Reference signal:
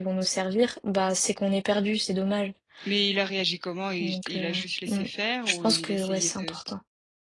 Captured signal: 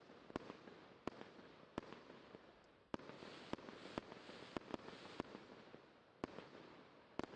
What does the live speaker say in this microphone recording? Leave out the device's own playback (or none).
none